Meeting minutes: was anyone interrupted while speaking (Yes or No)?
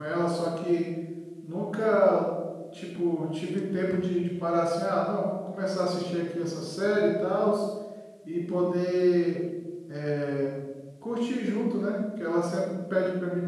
No